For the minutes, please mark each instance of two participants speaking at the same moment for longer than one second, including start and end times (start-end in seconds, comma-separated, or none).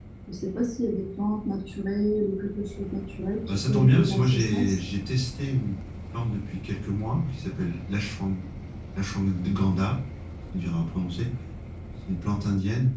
3.5-4.8